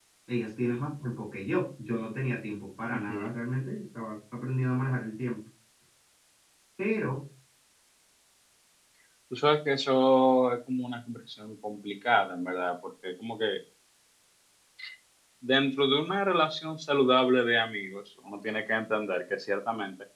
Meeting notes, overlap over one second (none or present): none